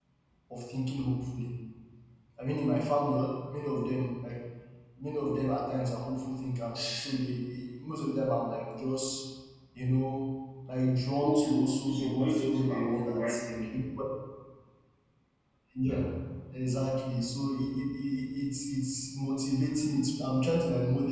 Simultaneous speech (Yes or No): Yes